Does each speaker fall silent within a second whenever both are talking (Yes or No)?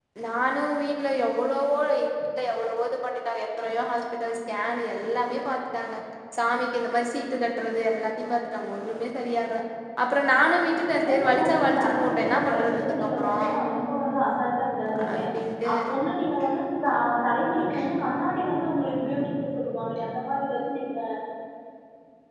No